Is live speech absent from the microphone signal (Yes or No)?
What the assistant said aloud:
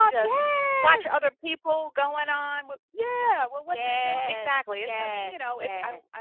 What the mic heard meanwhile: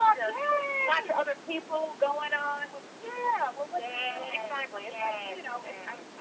Yes